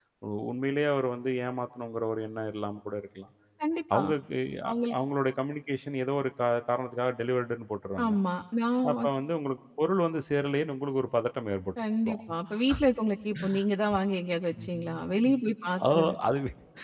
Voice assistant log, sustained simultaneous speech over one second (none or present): none